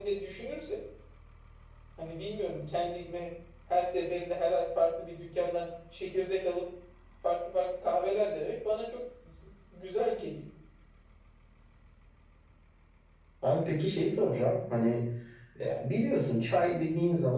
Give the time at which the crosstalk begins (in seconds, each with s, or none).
none